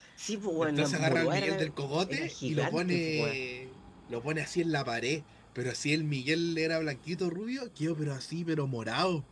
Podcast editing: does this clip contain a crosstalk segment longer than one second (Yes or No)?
Yes